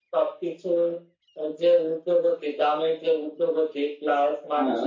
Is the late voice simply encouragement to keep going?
Yes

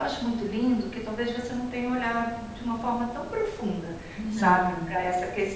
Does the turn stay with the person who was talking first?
Yes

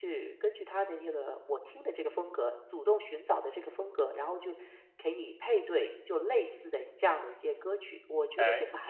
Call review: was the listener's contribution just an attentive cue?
No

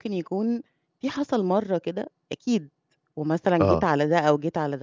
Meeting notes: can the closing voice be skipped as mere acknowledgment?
Yes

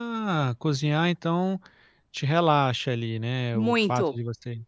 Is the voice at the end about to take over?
No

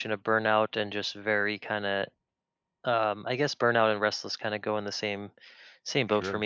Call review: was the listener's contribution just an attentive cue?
Yes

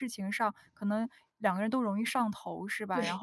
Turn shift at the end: No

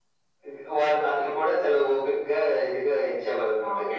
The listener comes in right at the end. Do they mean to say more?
Yes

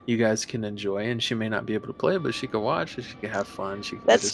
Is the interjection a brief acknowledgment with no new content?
Yes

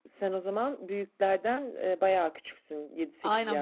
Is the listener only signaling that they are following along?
No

